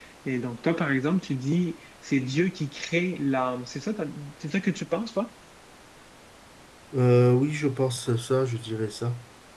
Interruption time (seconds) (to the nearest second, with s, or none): none